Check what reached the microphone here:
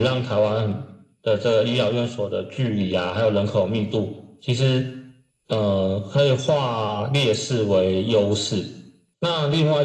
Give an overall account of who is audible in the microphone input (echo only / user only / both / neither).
echo only